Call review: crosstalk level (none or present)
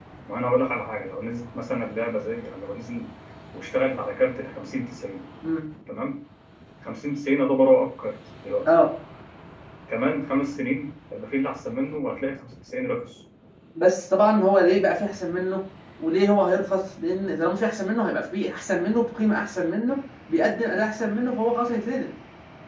none